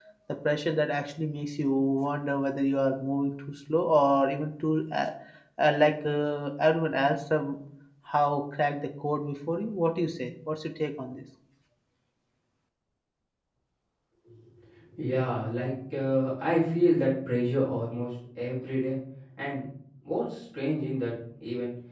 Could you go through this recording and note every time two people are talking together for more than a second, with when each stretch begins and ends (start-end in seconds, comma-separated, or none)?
none